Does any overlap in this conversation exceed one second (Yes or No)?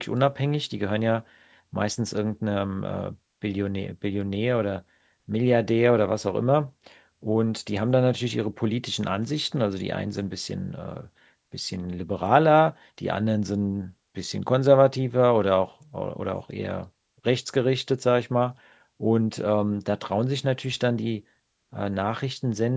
No